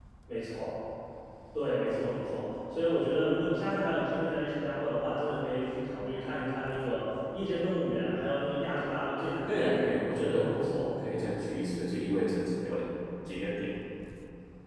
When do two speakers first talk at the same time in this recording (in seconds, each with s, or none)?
9.5 s